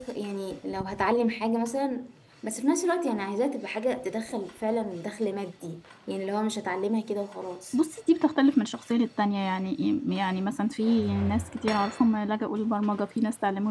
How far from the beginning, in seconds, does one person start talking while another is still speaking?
none

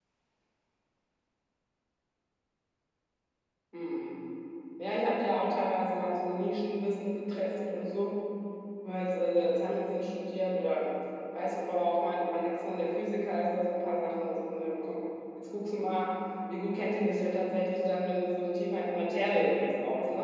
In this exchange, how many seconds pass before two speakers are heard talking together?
none

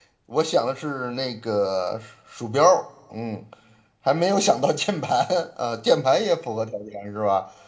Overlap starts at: none

